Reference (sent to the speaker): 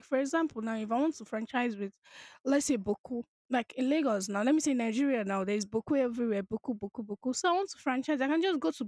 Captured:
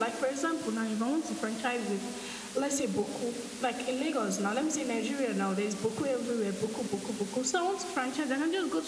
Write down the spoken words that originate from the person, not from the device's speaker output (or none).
none